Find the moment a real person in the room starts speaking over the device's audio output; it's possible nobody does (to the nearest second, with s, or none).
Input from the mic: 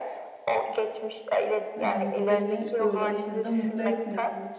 2 s